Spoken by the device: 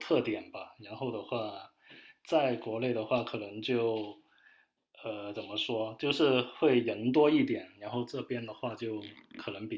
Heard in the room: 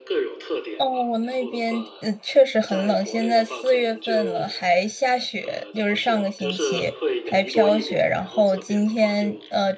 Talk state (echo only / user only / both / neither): both